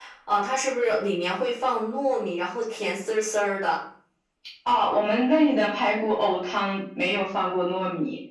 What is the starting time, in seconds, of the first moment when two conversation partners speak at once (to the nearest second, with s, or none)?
none